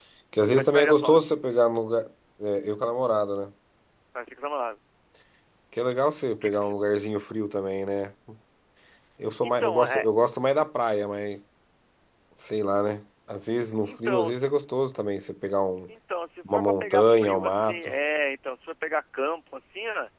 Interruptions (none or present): present